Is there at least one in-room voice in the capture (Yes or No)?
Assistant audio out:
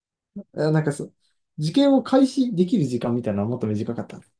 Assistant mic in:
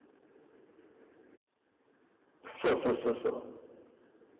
Yes